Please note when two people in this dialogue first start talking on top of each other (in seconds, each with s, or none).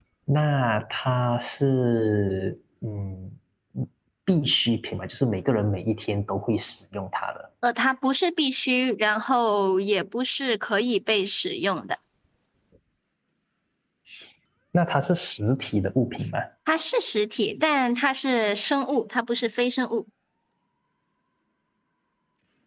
none